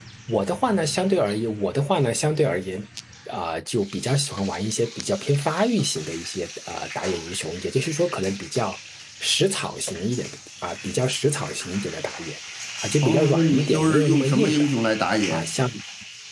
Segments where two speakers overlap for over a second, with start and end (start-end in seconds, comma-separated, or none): 13.0-14.7